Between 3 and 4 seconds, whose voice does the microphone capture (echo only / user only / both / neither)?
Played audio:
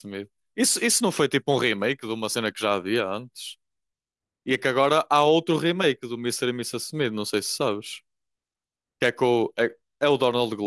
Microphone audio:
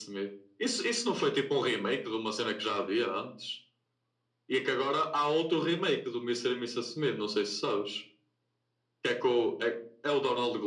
echo only